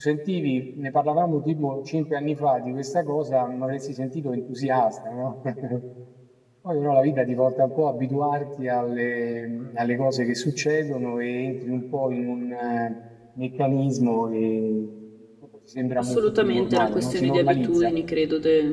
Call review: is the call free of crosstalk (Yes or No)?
No